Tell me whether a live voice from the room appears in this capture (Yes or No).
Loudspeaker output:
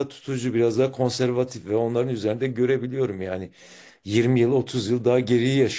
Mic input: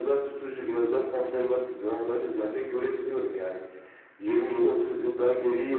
No